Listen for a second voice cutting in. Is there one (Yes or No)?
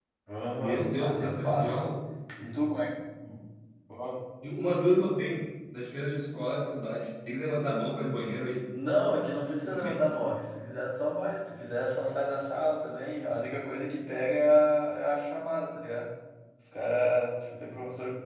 Yes